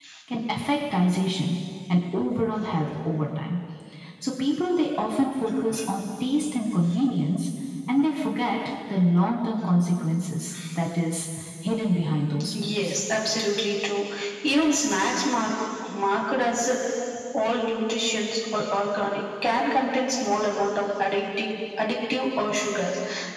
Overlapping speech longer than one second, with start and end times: none

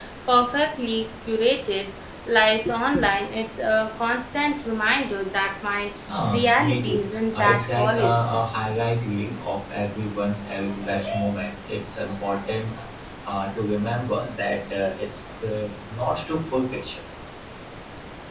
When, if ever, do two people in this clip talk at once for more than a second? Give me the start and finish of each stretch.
6.3-8.2

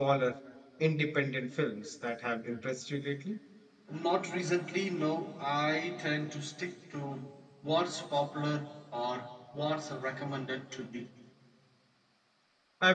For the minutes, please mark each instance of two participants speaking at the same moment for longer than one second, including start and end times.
none

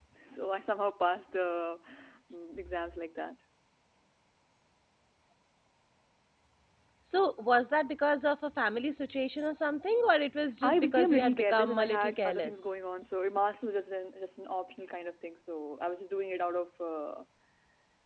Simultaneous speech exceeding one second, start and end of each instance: 10.6-12.7

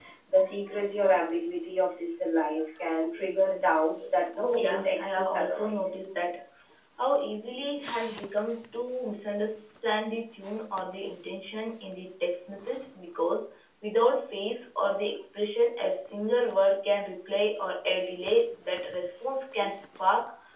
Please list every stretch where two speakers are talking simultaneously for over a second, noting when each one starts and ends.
4.5-6.0

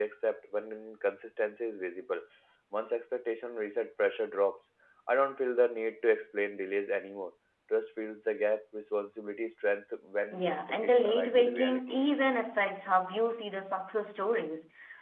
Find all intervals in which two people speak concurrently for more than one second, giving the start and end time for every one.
10.3-12.0

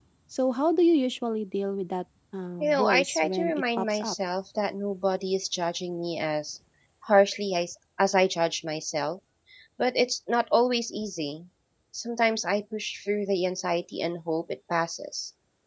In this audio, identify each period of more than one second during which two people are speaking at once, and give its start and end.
2.6-4.1

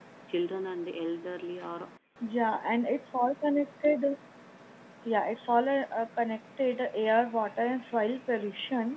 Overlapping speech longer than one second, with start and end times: none

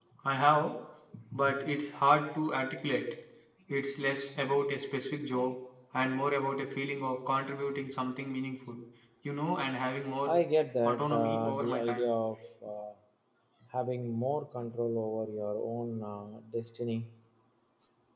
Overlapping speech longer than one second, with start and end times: 10.8-12.1

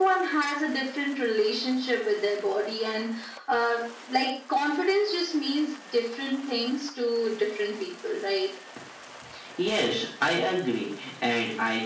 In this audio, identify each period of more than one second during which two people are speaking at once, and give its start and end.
none

